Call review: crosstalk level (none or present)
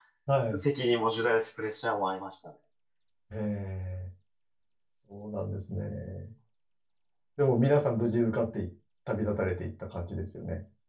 none